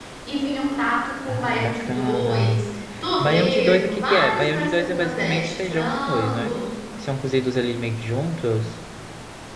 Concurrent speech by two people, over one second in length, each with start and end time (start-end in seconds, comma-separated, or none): 1.3-2.7, 3.2-6.6